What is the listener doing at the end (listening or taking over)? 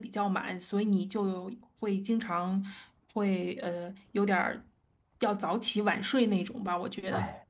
taking over